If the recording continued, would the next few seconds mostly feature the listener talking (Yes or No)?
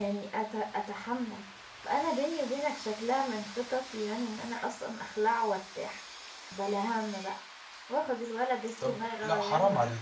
Yes